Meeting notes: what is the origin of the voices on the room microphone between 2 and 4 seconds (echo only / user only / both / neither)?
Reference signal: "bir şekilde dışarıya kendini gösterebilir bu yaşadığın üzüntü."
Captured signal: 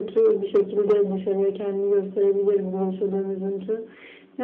echo only